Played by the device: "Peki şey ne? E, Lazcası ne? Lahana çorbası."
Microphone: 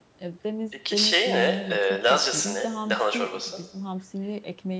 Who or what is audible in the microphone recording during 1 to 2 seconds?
both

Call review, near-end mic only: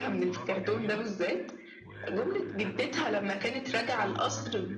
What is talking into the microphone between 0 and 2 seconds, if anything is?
both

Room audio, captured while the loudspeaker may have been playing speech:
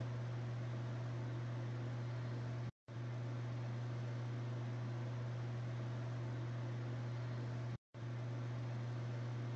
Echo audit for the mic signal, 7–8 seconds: neither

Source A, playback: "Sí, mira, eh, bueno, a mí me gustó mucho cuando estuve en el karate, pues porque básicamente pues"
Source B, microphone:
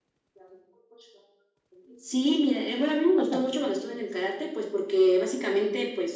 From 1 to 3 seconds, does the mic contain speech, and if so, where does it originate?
echo only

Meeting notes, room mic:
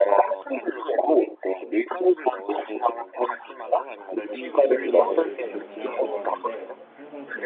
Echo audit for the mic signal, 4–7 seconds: both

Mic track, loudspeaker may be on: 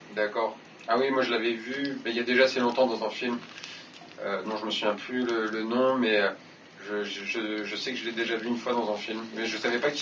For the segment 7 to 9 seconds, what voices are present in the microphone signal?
user only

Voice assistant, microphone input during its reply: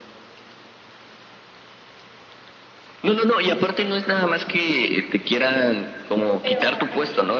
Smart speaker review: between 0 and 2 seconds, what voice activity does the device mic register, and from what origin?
neither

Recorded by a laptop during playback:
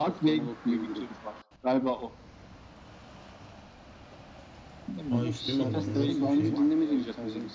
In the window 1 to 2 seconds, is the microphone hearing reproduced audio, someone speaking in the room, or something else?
echo only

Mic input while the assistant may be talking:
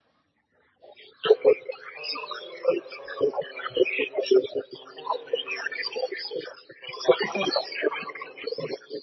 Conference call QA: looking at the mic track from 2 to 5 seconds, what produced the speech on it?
echo only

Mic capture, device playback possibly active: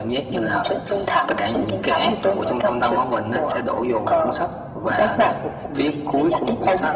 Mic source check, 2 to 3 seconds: echo only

